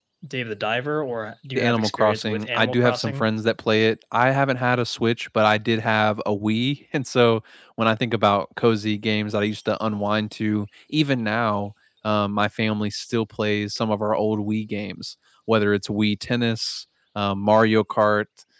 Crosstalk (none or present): present